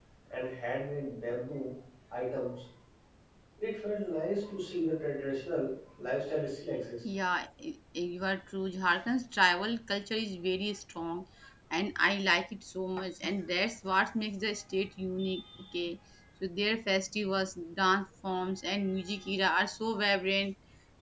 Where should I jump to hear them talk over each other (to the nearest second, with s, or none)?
none